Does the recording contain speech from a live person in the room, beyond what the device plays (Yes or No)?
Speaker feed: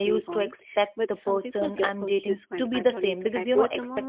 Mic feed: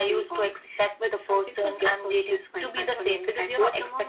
No